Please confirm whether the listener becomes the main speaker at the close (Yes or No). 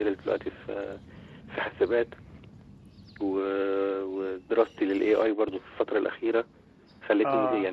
Yes